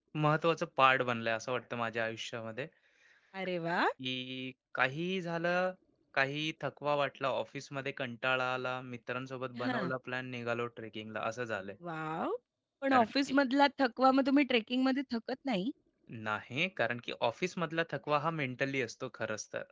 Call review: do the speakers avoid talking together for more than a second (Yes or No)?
Yes